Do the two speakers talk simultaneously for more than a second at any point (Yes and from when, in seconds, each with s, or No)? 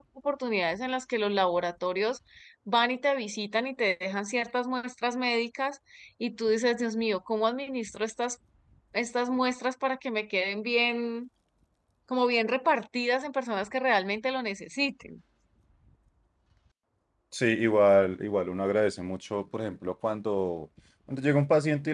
No